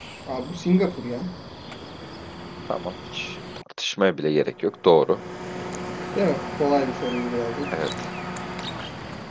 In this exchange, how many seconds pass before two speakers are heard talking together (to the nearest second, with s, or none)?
none